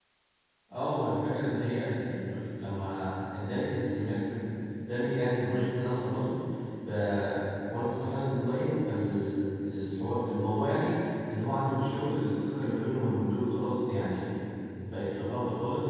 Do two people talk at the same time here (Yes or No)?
No